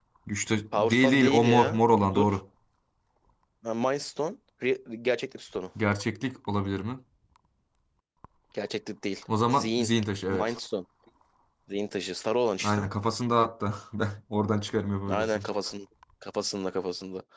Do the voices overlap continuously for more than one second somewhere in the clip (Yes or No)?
Yes